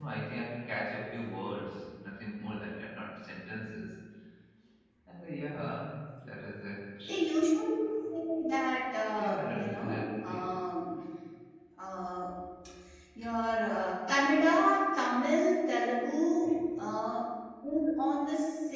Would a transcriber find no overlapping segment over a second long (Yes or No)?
No